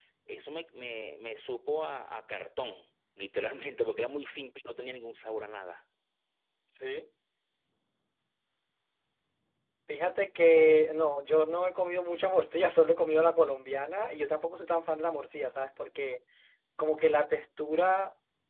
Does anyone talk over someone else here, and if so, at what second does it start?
none

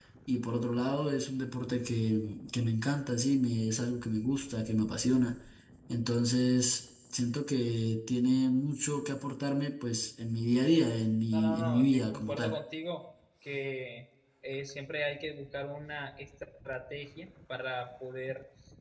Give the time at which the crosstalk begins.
11.3 s

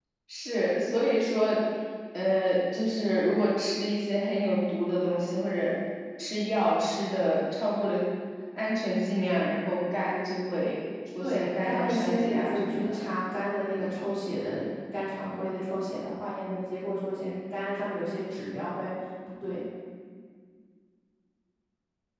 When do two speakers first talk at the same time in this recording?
11.2 s

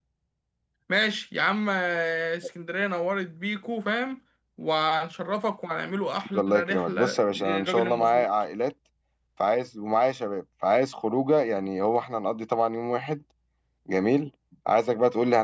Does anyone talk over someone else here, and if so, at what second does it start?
6.3 s

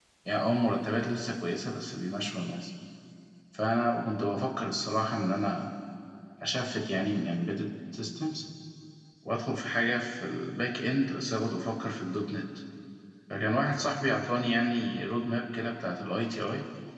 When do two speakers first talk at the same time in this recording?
none

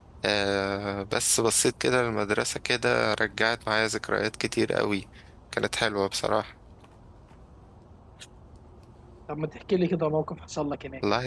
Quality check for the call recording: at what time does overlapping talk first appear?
none

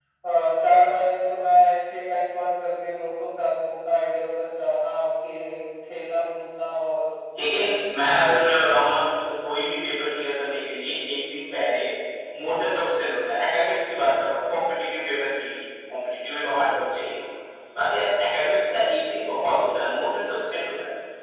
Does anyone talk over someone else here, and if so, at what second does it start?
none

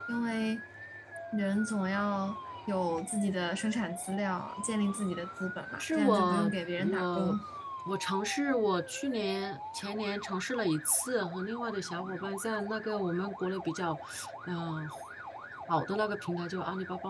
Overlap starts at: 5.7 s

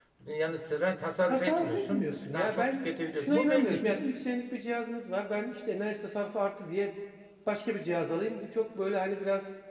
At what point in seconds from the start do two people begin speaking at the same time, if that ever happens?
1.3 s

